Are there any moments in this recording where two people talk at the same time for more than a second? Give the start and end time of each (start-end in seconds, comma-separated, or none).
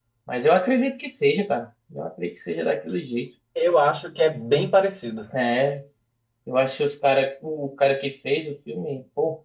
none